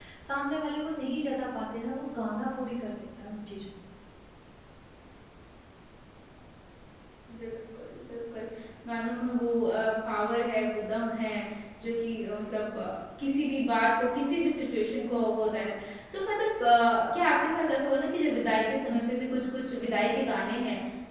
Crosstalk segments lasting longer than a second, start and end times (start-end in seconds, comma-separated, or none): none